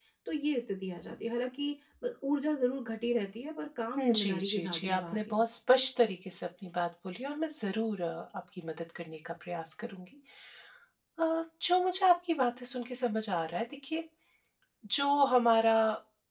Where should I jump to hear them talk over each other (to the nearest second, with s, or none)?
4 s